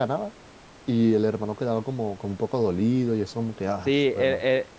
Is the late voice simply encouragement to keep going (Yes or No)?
No